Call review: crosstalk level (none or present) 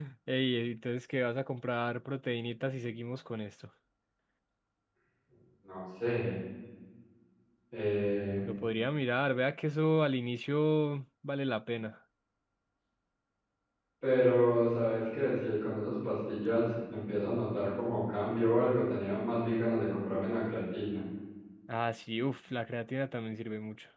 none